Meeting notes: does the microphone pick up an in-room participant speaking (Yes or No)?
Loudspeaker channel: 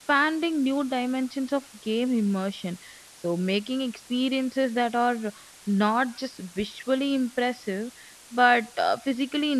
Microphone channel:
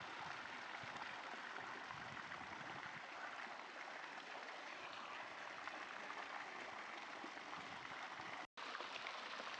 No